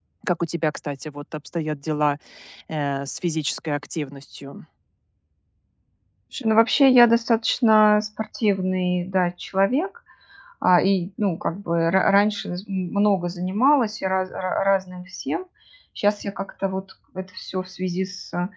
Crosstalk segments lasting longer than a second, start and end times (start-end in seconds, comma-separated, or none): none